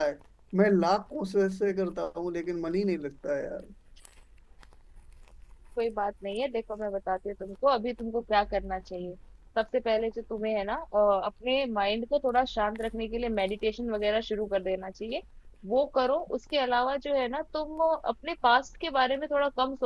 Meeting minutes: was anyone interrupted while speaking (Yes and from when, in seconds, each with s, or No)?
No